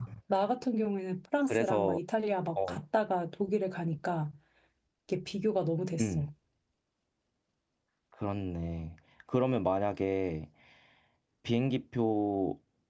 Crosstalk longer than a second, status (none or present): none